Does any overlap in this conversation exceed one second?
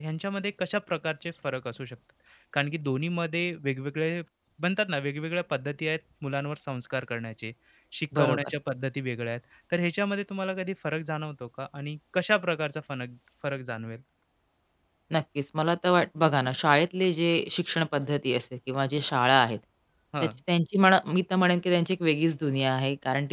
No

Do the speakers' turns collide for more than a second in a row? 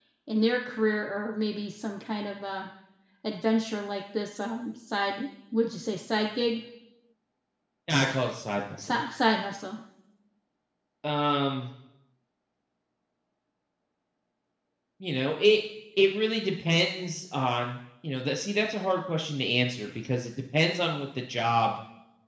No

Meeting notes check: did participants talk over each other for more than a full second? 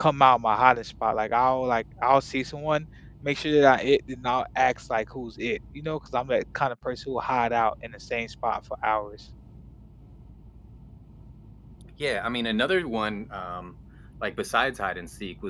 No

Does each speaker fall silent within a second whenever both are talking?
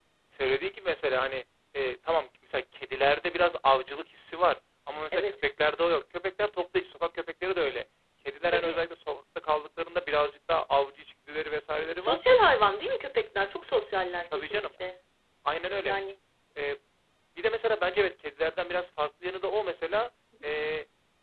Yes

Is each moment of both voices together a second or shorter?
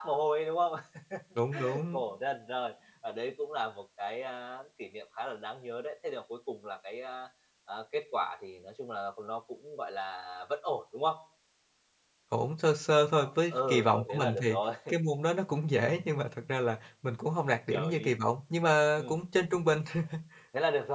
No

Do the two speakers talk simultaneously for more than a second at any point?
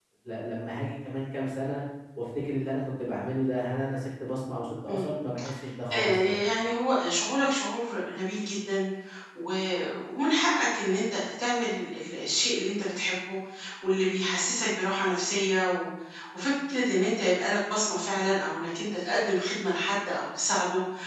No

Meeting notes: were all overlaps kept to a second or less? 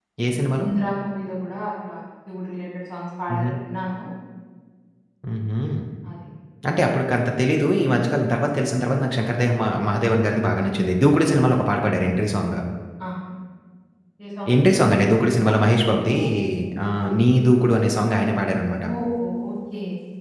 Yes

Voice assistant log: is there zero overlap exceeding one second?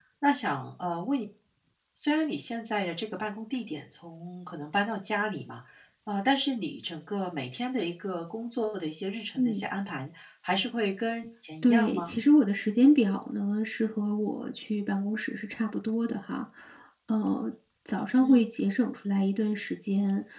Yes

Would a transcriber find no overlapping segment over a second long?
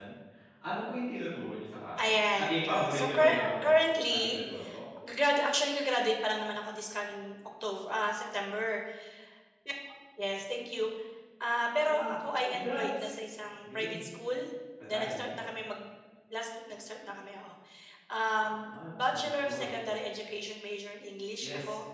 No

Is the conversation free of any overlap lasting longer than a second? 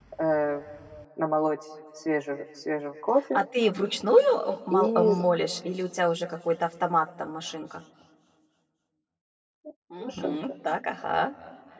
Yes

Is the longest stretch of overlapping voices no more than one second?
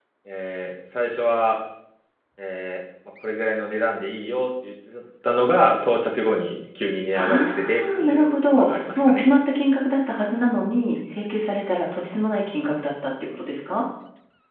No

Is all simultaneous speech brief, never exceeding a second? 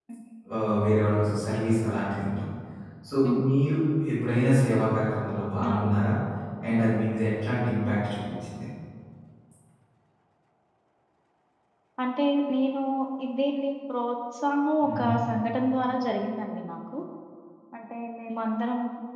Yes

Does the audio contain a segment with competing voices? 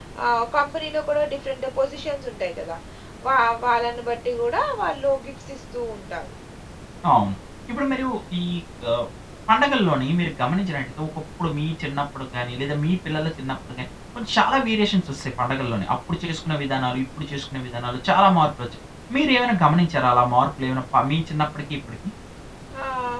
No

